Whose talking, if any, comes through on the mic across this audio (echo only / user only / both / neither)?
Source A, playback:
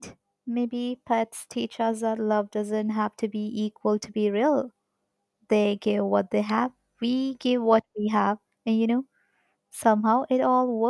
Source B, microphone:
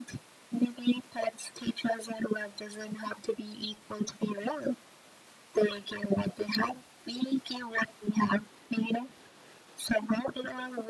echo only